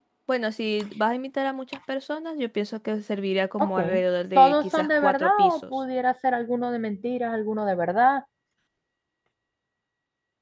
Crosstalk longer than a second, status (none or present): present